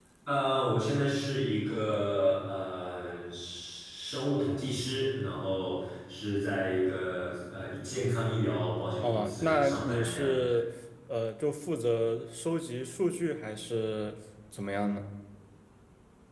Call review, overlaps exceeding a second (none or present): present